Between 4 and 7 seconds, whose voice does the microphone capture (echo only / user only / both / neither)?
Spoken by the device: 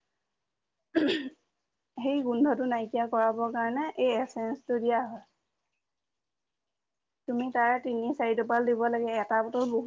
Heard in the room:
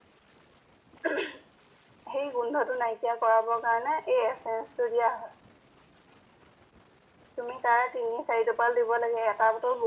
echo only